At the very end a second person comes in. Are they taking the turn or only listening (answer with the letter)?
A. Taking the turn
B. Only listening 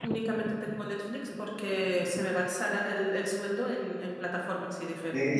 A